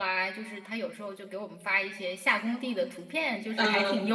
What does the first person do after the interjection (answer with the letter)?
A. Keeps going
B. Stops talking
A